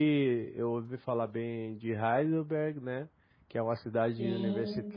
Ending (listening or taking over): listening